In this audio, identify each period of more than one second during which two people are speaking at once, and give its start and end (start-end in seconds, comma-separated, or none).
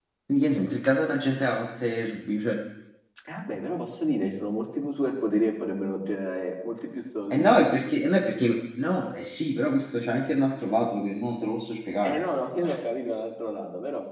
none